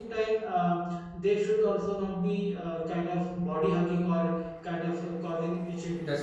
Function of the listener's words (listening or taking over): listening